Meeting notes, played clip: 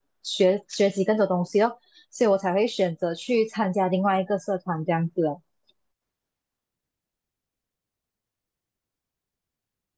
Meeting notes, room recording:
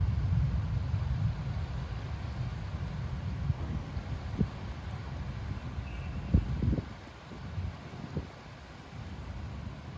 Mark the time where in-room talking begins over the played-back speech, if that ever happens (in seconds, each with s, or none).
none